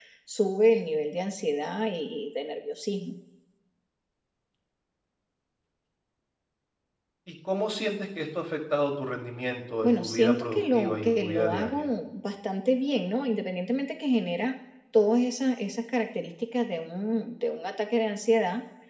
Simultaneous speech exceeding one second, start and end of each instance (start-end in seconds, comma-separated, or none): 9.8-11.9